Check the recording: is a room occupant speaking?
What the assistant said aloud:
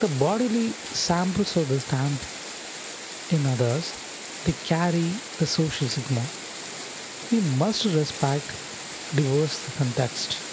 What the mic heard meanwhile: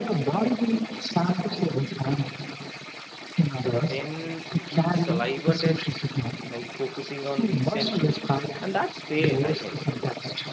Yes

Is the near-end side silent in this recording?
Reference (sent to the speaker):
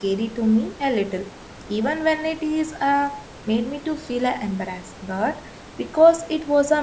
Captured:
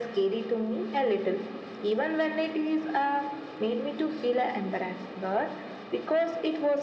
Yes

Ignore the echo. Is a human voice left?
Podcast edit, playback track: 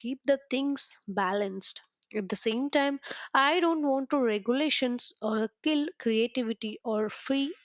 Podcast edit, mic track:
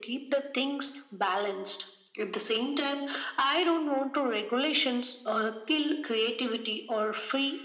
No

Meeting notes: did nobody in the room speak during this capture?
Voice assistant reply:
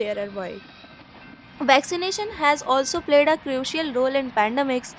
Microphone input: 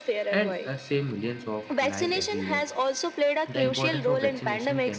No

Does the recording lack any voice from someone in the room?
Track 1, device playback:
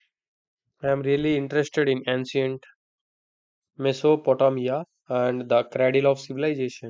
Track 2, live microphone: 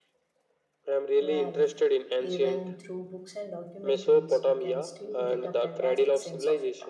No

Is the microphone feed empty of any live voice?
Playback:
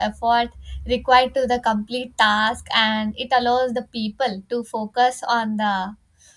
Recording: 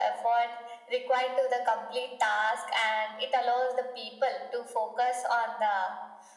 Yes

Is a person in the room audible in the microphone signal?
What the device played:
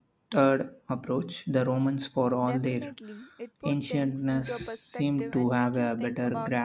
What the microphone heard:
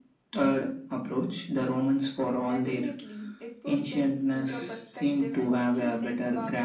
No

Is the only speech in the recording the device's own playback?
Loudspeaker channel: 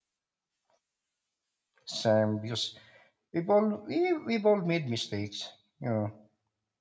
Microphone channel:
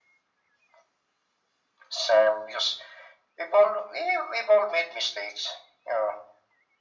Yes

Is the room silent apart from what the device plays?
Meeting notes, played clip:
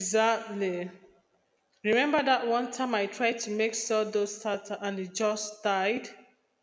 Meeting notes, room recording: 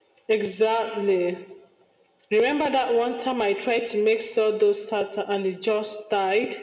Yes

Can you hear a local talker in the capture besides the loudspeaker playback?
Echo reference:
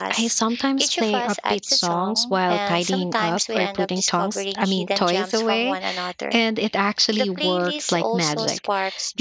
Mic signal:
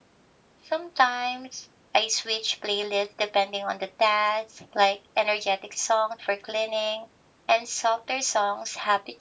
Yes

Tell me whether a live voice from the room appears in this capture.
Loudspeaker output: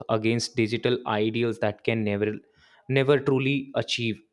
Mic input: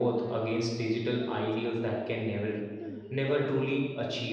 Yes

